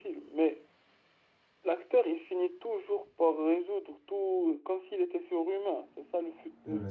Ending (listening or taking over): taking over